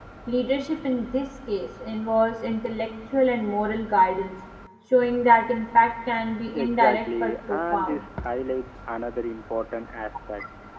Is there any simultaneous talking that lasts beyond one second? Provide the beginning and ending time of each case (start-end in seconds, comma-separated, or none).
6.5-8.1